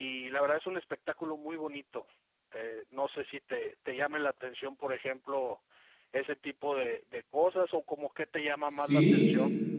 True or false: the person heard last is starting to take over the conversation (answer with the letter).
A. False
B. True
B